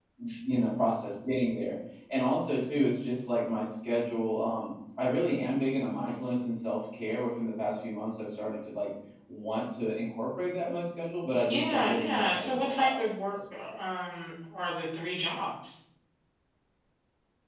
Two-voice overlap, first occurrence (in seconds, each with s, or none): 11.5 s